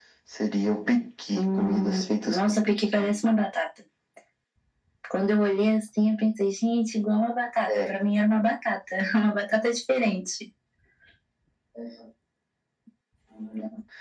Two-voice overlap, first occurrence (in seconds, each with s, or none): 1.4 s